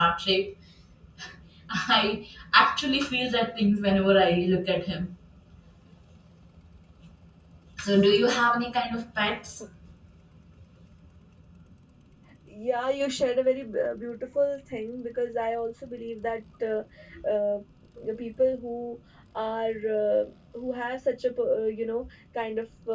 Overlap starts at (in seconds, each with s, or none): none